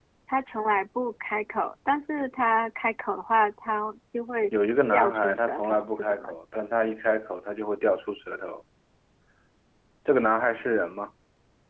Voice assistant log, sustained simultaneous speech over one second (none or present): present